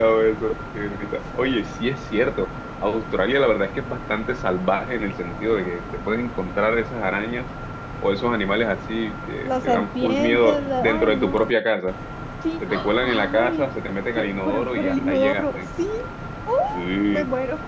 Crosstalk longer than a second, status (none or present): present